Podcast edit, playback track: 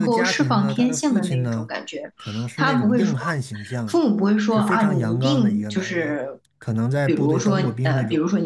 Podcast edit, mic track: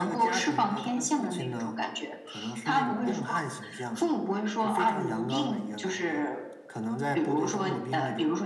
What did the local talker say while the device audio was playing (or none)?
none